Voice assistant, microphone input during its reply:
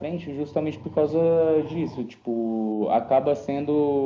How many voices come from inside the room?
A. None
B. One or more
A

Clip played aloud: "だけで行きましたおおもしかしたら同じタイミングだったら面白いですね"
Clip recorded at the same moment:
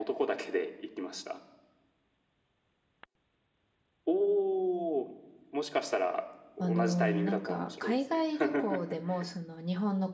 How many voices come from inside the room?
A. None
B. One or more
B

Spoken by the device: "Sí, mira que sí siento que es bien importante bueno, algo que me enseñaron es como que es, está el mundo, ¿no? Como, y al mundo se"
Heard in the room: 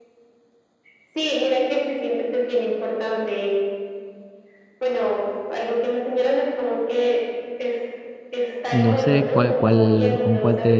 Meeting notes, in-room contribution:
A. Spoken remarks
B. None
A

